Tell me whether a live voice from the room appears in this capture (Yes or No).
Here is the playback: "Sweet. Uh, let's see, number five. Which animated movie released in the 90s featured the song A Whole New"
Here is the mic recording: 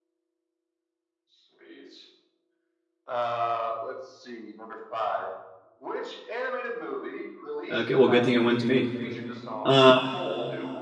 Yes